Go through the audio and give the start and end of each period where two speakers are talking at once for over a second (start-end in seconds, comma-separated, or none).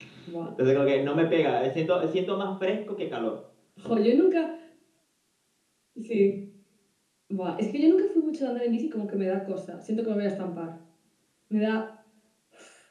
none